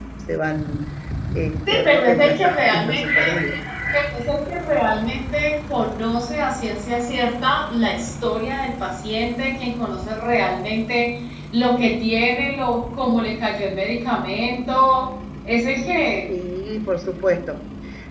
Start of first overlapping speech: 2 s

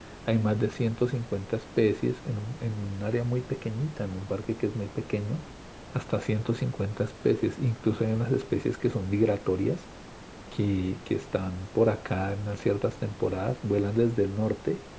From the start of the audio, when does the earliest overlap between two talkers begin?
none

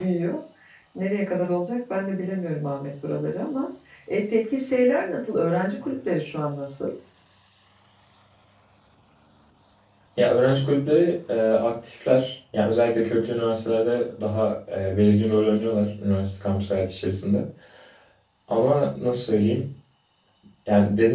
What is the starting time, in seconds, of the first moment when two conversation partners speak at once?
none

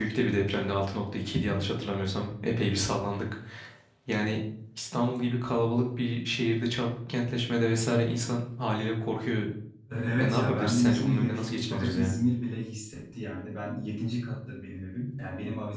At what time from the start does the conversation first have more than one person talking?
10 s

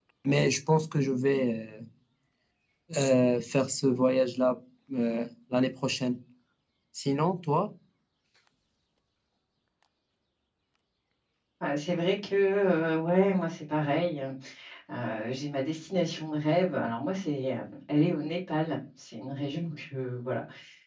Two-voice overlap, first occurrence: none

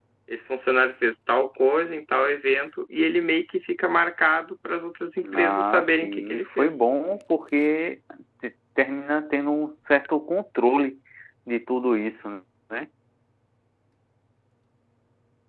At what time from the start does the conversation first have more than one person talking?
5 s

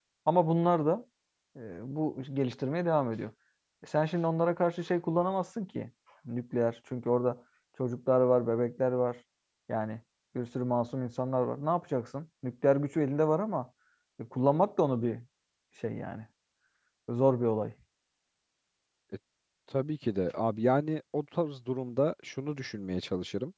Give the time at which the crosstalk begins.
none

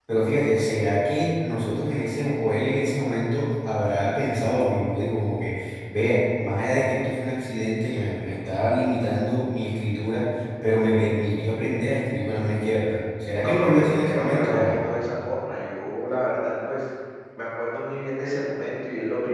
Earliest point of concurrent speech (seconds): 13 s

